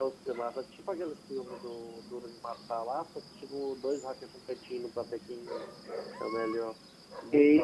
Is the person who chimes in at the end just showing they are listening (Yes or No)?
No